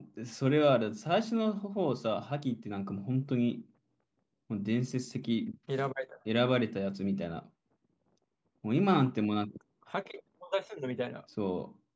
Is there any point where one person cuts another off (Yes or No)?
No